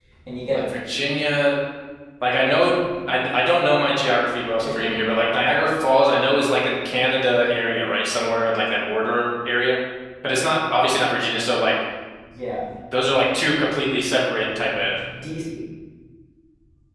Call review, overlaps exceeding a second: none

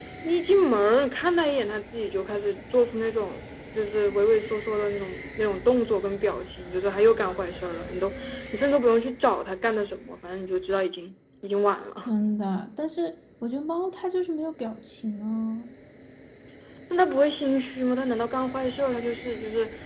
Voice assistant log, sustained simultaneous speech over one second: none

